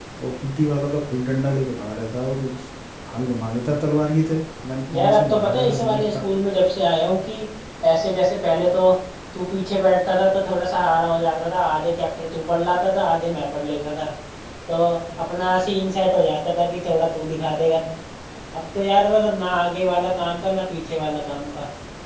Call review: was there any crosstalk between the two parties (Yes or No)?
Yes